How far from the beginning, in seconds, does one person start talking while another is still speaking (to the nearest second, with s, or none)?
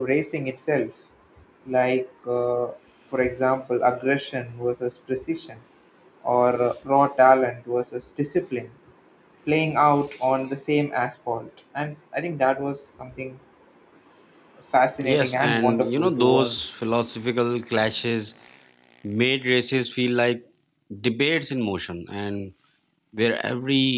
15 s